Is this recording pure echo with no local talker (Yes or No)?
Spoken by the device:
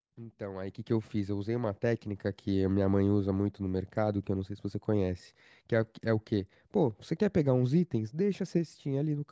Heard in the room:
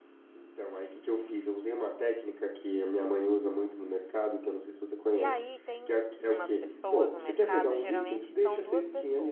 No